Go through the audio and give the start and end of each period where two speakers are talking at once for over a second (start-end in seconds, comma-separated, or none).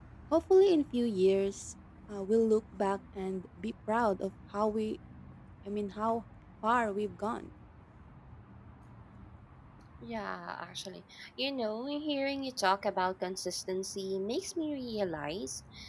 none